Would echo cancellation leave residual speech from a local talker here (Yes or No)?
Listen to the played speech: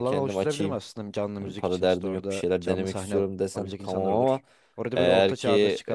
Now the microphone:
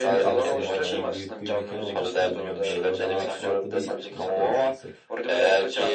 Yes